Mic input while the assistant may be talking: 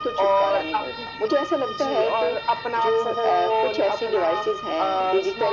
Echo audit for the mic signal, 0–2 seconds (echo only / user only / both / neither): echo only